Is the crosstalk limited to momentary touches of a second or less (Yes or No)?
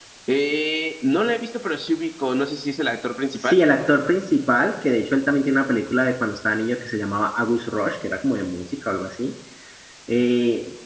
Yes